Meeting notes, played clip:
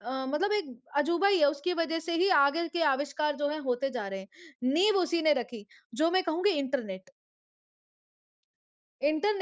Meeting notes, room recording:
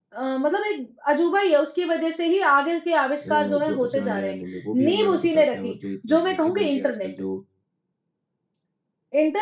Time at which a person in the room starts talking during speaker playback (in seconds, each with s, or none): 3.3 s